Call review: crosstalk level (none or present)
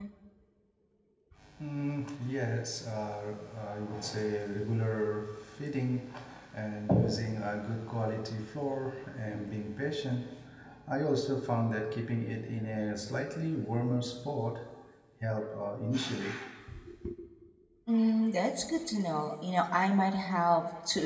none